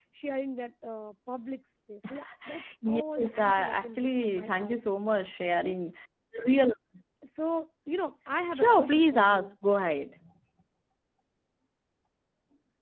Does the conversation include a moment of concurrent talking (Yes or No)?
Yes